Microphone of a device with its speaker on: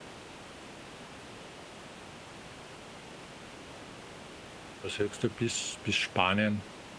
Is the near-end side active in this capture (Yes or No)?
Yes